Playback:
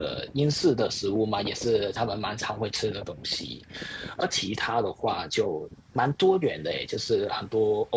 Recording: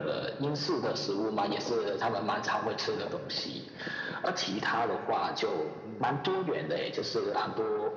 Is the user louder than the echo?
No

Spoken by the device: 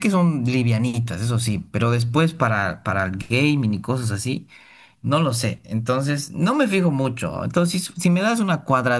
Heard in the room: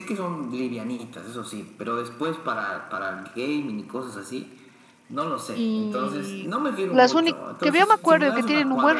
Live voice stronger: Yes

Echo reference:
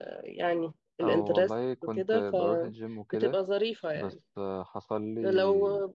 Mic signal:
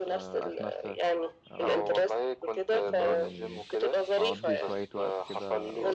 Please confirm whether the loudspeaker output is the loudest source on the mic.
Yes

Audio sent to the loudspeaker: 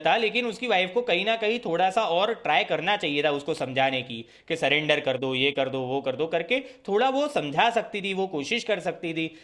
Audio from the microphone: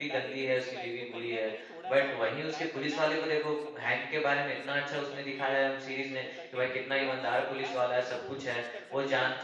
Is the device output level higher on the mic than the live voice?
No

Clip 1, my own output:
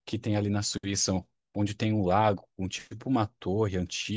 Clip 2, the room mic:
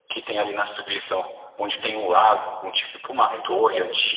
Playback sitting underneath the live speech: No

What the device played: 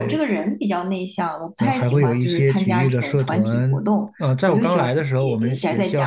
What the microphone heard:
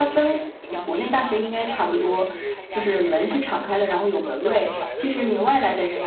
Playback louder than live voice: No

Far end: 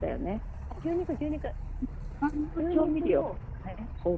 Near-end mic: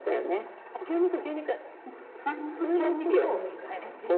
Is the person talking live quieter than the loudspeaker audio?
Yes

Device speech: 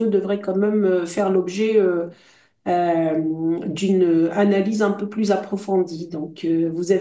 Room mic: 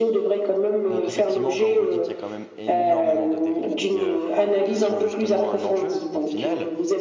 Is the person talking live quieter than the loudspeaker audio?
Yes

